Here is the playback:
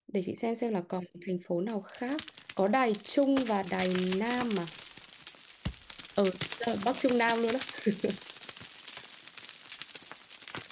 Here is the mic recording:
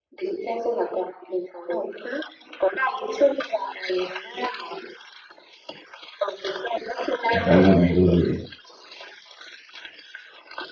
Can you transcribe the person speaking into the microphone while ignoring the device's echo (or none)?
Em em cũng em cũng vậy